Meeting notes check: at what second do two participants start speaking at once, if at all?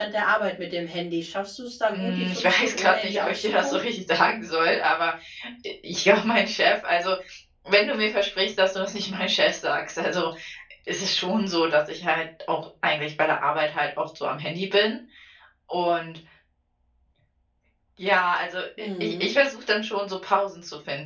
1.9 s

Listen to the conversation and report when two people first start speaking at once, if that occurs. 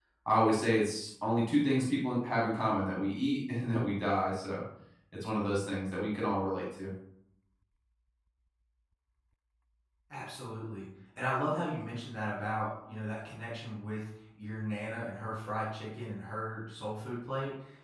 none

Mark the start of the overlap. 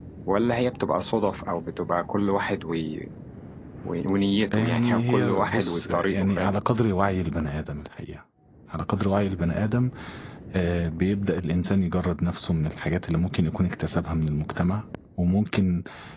4.5 s

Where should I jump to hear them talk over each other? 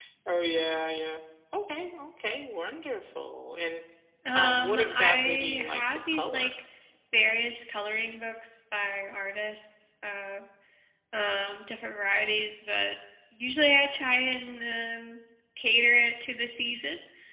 4.3 s

